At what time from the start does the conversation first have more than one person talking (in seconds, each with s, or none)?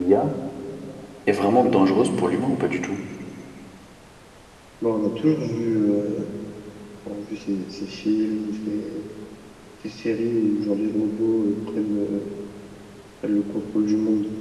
none